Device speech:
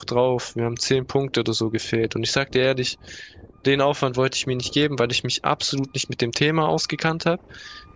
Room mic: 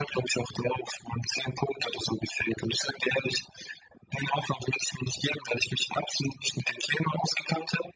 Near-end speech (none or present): none